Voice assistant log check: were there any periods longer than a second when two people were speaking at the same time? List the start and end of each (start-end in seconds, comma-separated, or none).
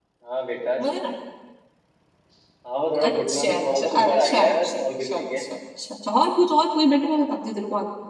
3.0-5.4